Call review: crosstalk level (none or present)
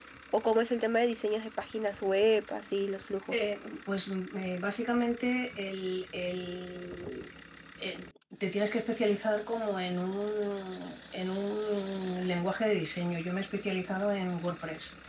none